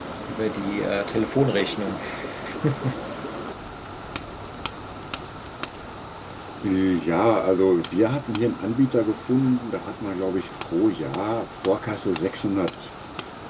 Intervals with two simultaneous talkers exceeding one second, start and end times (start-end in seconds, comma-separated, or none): none